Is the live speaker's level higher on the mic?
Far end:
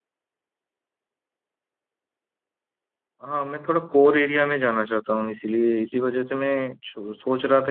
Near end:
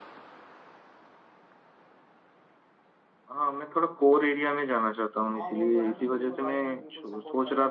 No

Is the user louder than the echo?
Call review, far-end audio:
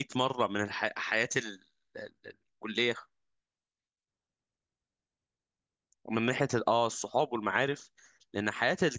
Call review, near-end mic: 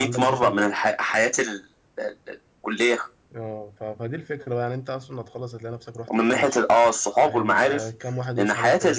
No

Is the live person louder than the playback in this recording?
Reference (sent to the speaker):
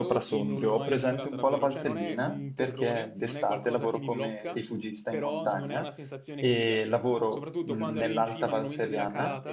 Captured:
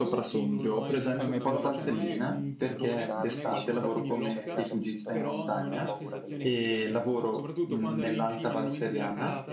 No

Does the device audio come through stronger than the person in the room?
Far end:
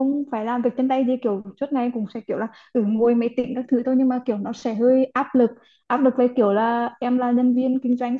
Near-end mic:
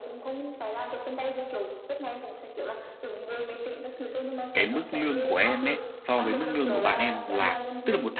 No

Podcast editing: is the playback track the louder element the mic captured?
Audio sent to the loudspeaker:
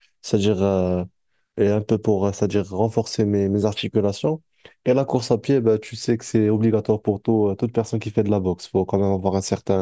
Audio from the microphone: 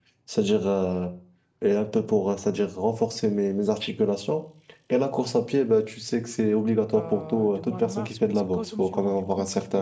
Yes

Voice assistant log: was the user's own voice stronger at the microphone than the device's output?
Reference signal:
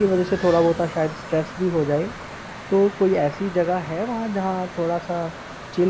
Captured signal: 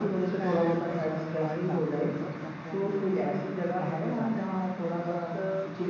No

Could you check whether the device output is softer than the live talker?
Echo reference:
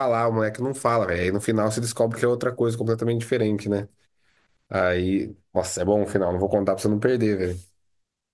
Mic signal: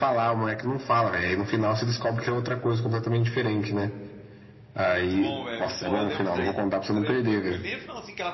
No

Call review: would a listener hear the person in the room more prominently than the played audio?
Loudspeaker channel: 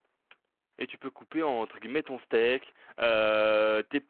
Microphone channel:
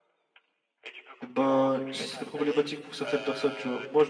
Yes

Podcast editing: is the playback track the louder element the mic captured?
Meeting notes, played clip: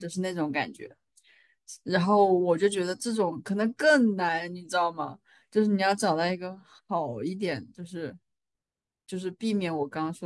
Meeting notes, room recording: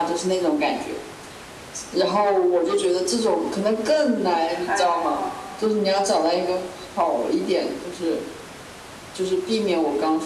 Yes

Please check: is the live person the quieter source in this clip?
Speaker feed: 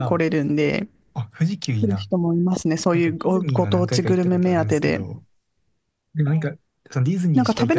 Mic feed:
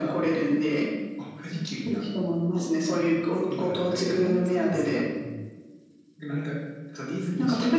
Yes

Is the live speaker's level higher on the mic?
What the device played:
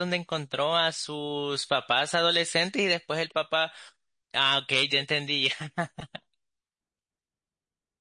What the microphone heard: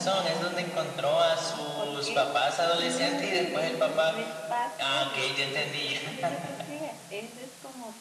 No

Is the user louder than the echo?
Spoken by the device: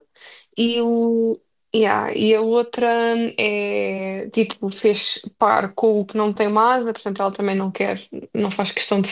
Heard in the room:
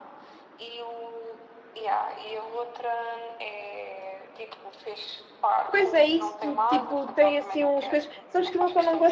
Yes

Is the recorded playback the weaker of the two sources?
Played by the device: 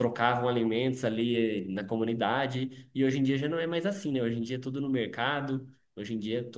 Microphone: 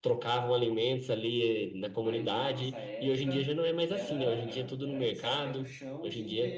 No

